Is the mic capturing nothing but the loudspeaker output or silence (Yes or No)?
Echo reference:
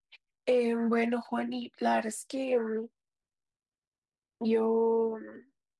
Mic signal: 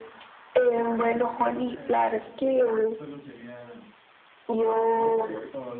No